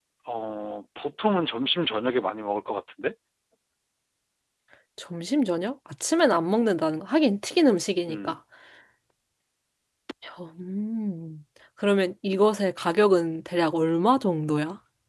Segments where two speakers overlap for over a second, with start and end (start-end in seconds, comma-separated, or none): none